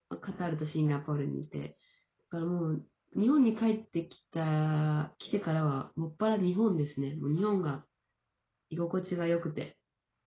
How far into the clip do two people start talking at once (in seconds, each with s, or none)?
none